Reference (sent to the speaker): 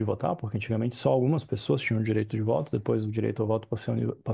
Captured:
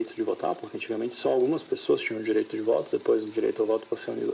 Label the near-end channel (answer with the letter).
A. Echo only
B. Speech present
A